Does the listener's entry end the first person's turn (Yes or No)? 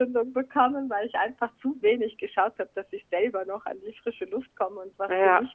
Yes